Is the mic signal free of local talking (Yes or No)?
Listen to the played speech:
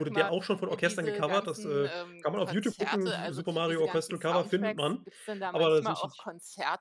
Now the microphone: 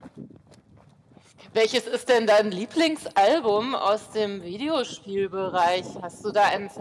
No